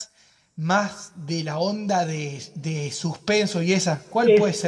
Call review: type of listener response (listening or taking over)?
taking over